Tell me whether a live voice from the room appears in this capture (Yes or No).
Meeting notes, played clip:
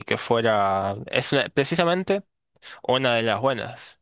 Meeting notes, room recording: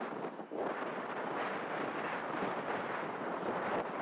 No